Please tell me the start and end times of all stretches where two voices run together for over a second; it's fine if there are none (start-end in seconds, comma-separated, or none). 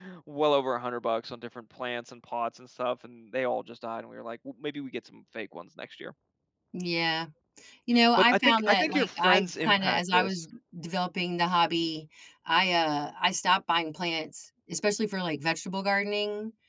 8.2-10.4